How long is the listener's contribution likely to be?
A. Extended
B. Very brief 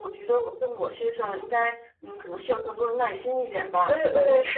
A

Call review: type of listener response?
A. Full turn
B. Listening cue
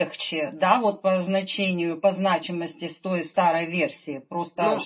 A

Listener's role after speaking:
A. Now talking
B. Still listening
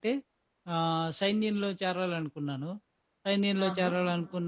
B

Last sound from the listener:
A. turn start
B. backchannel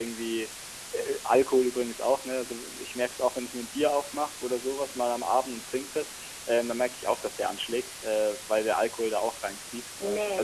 A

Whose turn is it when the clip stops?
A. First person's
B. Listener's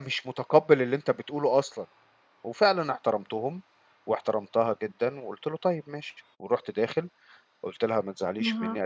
A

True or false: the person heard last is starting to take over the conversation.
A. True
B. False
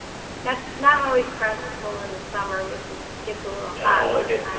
A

